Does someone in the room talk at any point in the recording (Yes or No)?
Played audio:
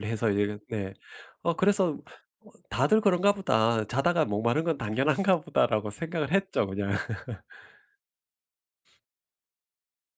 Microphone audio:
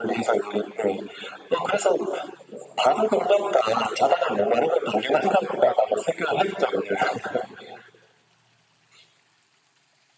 No